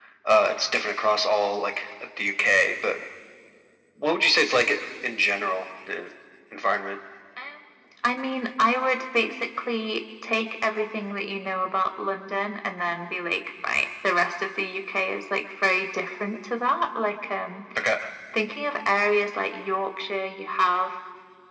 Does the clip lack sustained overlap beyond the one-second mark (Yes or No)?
Yes